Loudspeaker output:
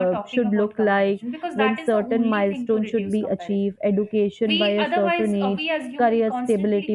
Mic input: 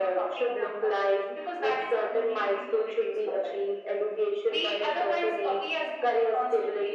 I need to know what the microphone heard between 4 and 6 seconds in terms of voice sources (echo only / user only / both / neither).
echo only